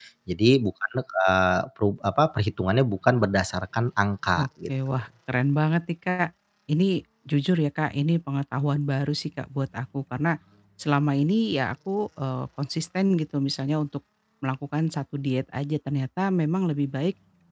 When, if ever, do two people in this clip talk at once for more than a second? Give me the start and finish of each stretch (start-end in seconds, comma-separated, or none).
none